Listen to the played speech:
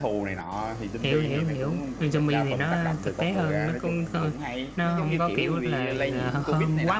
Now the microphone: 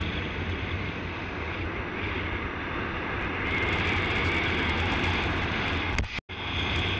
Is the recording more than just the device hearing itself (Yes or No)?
No